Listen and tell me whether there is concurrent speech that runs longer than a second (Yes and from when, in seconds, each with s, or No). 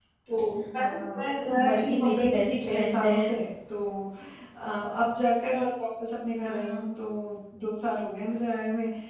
Yes, from 0.8 s